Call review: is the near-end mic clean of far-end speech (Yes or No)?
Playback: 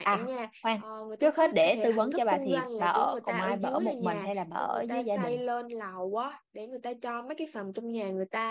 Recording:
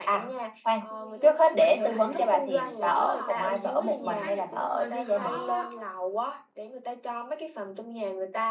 No